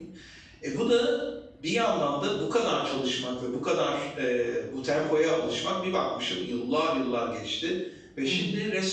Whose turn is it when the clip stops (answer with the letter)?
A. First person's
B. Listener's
A